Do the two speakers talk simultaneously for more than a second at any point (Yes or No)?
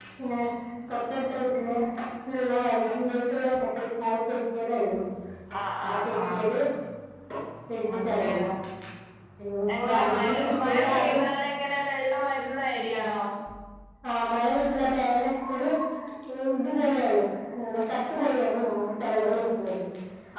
Yes